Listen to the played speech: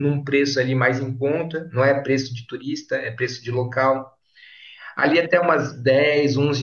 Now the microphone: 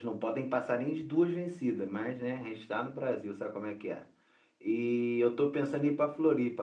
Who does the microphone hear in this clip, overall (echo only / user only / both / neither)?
user only